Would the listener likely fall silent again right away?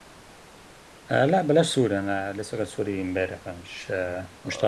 No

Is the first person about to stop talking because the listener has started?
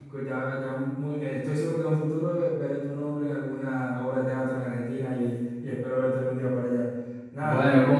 Yes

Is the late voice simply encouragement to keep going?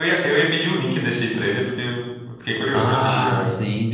No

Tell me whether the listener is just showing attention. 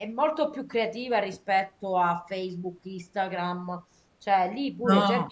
Yes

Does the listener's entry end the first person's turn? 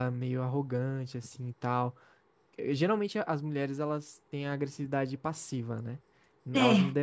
No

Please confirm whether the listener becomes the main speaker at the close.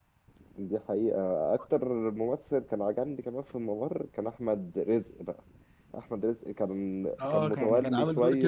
Yes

